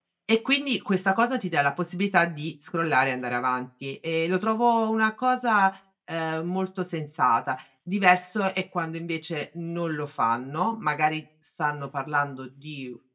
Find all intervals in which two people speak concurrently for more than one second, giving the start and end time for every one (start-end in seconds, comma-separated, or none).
none